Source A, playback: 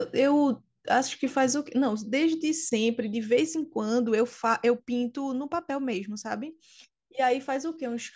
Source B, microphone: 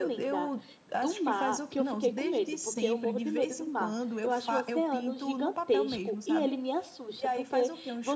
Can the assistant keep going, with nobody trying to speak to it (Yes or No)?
No